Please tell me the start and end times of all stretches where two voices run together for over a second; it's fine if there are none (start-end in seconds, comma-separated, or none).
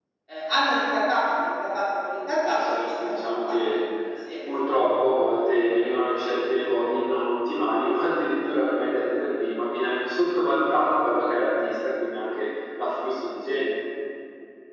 2.4-3.8